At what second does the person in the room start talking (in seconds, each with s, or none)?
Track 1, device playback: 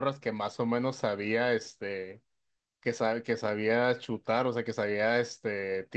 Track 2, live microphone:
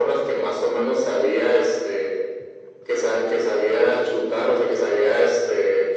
none